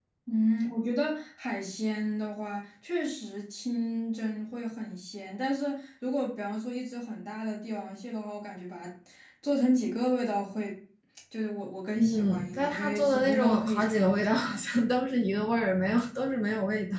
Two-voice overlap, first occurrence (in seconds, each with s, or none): 12.0 s